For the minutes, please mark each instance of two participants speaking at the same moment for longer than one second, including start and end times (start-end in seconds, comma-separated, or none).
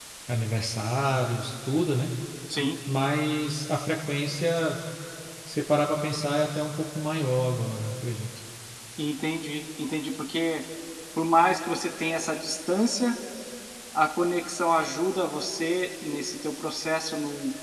none